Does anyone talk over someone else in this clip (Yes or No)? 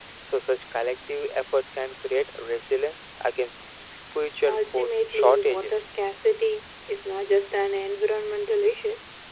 Yes